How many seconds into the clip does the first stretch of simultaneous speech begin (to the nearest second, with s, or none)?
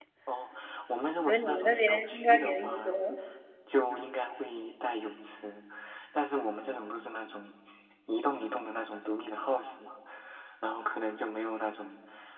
1 s